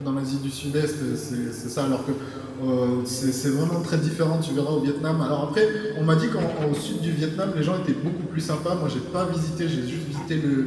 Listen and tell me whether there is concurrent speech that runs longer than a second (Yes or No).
No